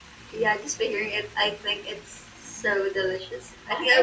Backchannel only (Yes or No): No